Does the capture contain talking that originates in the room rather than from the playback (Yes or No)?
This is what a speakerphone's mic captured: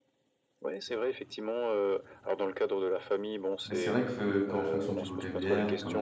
Yes